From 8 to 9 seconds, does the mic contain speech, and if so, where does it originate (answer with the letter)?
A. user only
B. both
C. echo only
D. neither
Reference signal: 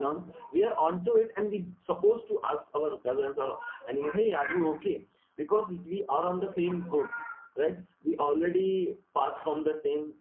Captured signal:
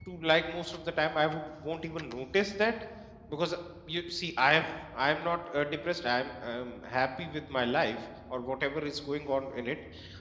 A